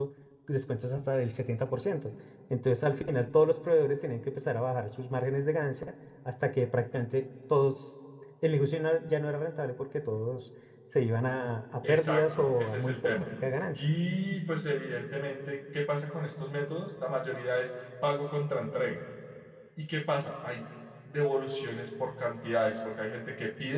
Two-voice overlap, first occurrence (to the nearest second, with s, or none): 12 s